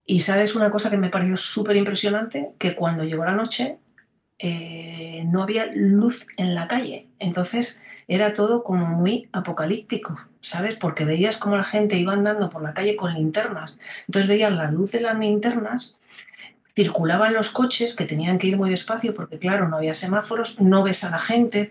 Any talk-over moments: No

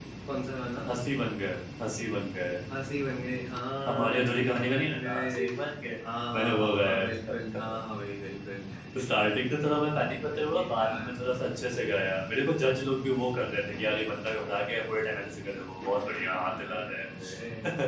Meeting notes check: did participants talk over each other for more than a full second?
Yes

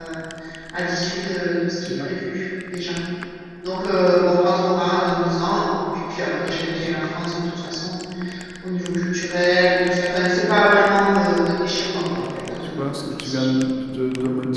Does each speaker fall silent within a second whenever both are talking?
No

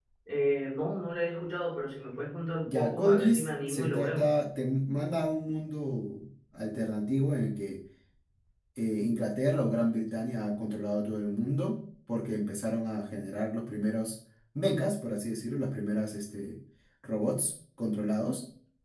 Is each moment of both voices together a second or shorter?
No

